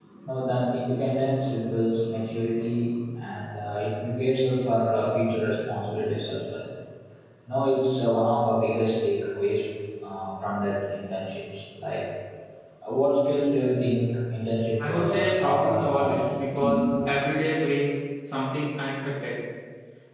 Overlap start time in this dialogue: 14.8 s

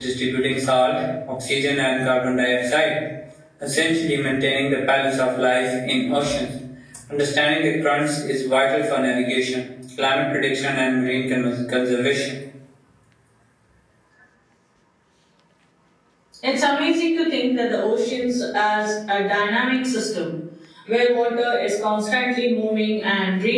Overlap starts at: none

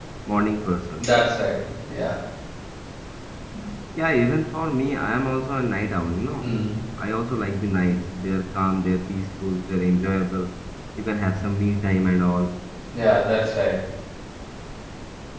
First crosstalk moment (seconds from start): none

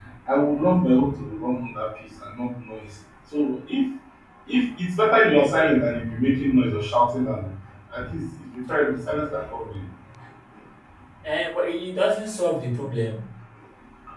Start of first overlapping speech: none

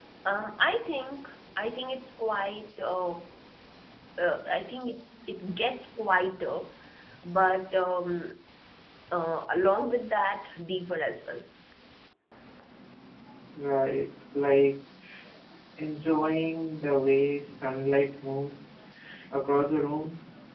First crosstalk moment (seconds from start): none

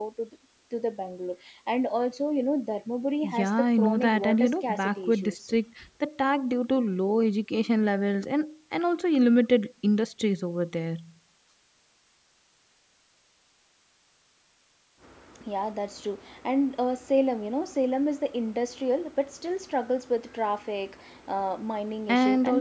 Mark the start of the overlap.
3.2 s

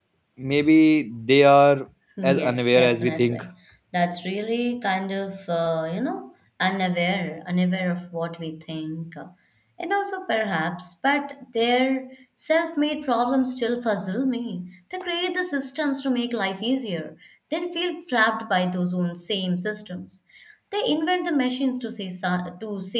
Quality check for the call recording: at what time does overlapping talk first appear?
2.2 s

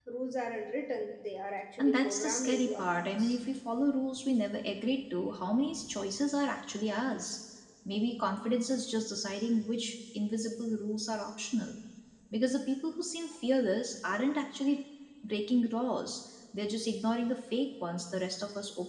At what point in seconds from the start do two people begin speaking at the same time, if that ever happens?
1.8 s

